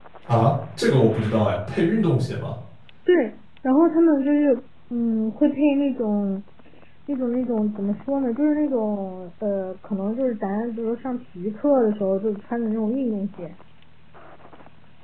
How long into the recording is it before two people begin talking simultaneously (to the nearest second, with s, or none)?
none